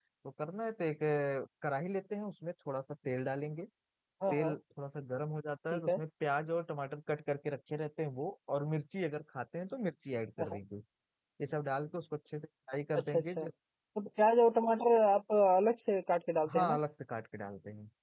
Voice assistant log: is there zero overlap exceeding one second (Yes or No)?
Yes